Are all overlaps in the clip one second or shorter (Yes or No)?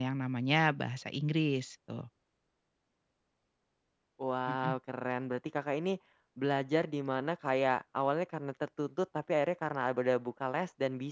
Yes